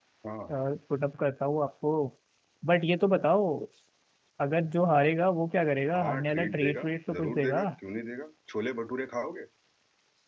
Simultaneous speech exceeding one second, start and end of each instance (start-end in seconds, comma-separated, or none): 6.0-7.6